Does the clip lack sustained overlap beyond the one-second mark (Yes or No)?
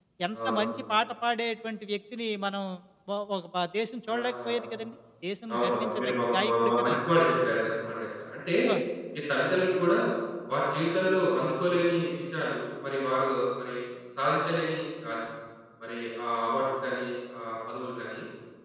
No